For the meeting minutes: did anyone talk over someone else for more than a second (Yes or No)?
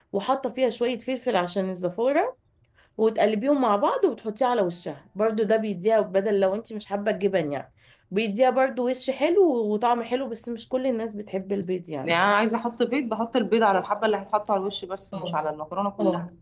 No